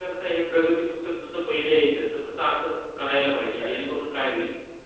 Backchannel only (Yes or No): Yes